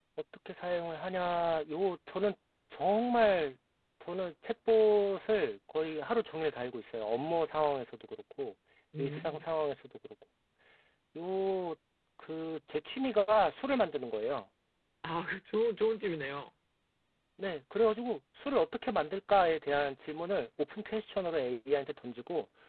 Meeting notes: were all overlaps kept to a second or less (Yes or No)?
Yes